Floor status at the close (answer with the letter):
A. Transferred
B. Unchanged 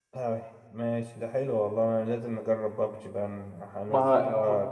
B